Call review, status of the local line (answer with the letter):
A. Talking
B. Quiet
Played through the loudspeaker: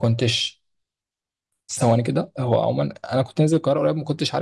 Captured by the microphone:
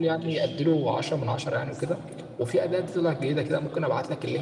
A